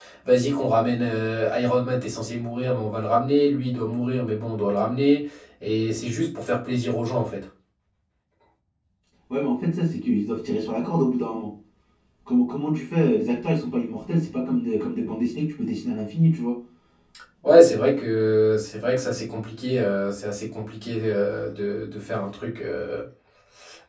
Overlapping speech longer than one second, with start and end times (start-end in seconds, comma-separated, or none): none